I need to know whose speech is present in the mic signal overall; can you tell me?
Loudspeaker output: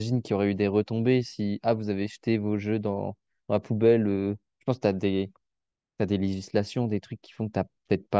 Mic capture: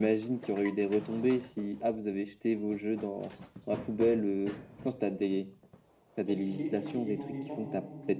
both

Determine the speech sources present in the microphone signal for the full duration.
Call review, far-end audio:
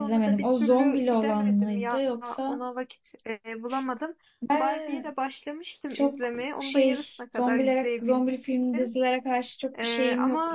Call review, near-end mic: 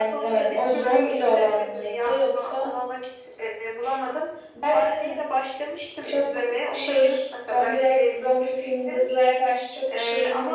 echo only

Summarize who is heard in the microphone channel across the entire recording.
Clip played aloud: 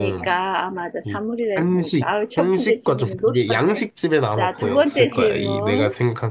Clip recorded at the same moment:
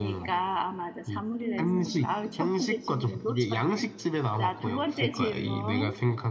both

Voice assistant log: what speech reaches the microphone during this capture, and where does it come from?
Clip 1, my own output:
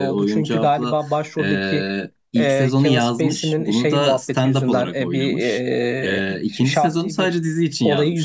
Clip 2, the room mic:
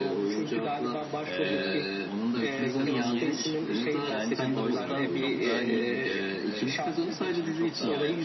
both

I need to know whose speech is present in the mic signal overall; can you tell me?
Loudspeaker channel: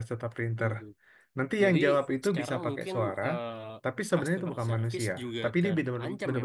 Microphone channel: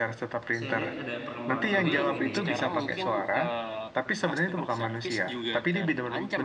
both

